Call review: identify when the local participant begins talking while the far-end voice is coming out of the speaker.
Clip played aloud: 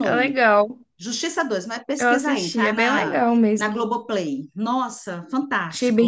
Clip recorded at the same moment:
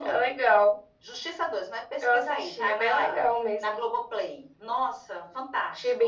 none

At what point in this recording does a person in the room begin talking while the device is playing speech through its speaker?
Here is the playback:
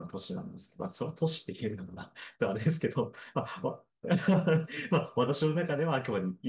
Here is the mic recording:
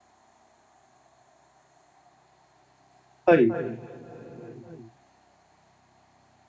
3.2 s

